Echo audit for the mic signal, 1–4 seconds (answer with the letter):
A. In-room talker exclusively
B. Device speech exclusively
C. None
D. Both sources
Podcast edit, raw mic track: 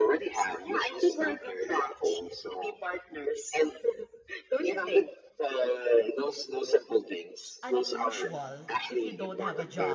B